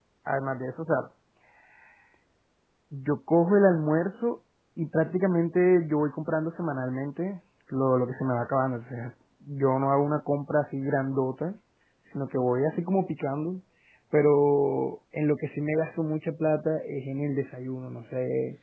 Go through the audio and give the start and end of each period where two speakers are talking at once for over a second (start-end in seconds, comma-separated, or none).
none